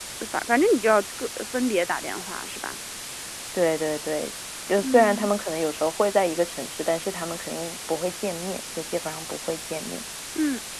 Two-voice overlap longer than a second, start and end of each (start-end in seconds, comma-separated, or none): none